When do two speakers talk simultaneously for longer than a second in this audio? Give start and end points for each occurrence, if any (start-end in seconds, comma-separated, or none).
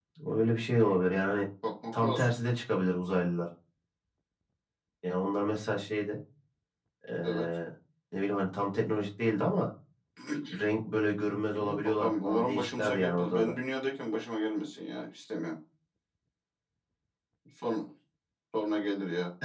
11.5-13.5